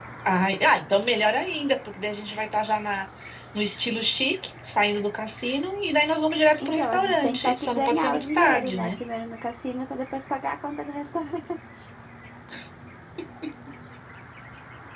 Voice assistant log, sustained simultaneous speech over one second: present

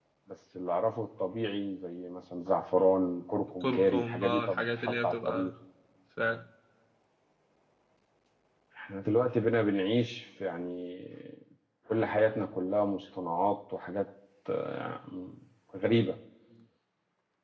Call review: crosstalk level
present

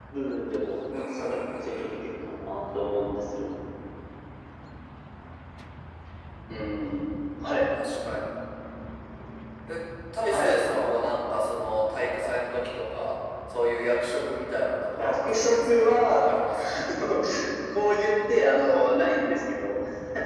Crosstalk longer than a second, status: present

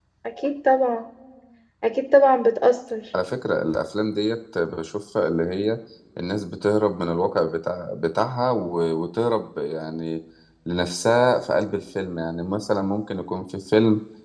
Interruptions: none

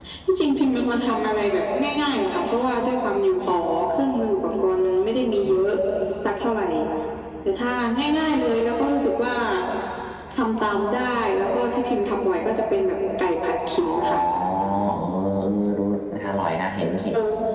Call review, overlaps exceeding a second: none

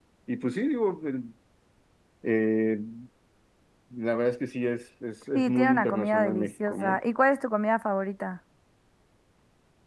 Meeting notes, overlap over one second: present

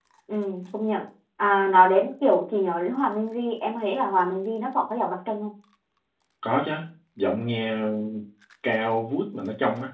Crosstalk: none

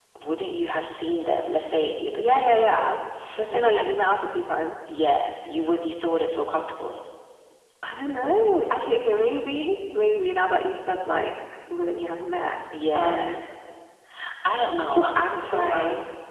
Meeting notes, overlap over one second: present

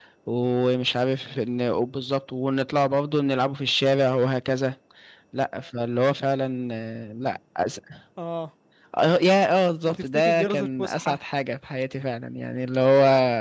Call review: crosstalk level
present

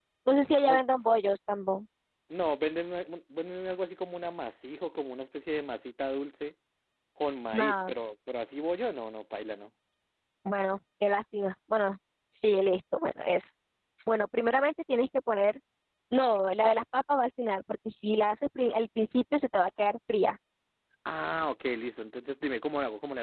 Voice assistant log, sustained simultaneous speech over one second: none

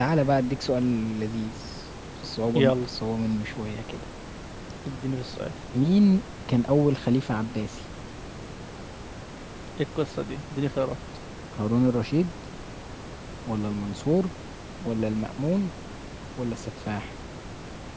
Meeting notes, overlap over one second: none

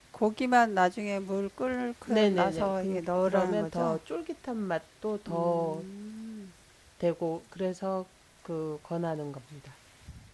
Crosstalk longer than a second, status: present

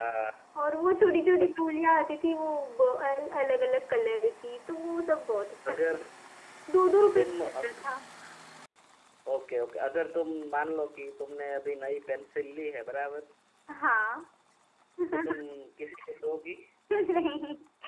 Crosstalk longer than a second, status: none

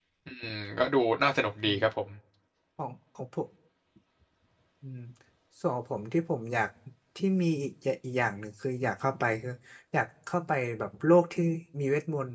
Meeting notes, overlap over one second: none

